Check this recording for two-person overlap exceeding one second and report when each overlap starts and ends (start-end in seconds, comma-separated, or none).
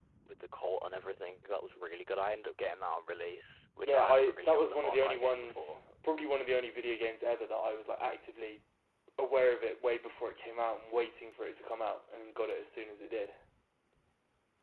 3.8-5.8